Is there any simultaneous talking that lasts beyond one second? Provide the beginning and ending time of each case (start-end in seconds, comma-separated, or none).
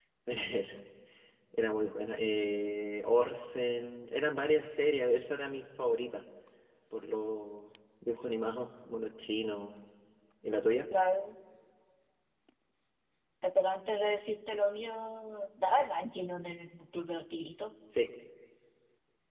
none